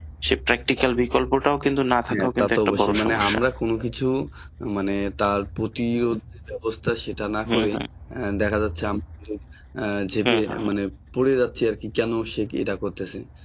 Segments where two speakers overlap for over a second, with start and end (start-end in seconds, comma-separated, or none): 2.1-3.4